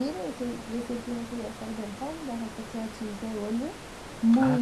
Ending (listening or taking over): taking over